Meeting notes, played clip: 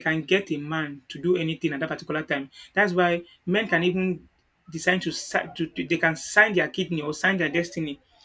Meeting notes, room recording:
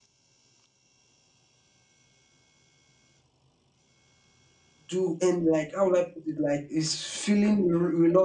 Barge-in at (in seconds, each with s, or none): 4.9 s